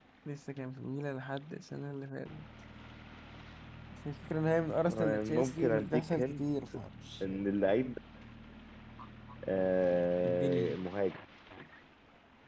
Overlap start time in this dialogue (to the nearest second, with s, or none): 5 s